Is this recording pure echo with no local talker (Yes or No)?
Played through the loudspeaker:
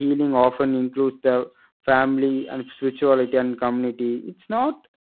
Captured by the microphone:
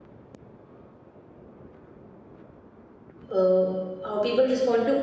No